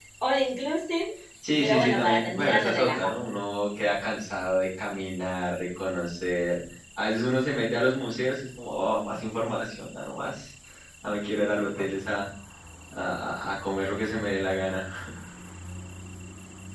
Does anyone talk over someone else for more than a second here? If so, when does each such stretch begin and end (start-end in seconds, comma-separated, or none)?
1.6-3.1